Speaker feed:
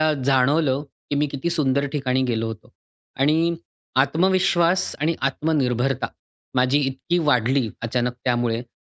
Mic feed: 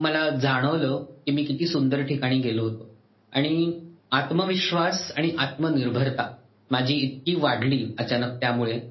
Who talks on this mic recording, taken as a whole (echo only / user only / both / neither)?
echo only